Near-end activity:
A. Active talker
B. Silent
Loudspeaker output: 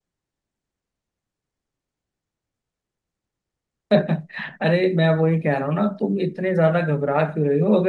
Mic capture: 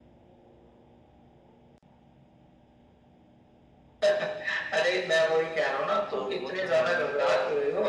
A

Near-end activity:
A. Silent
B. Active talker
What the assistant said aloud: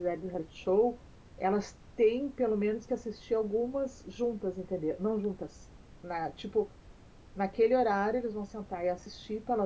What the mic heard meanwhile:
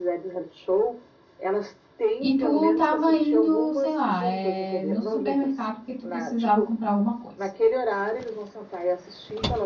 B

